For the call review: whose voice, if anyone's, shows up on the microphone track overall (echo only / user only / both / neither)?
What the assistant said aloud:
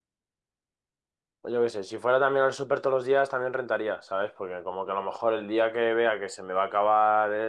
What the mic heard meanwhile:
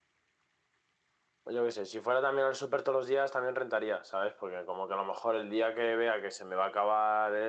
echo only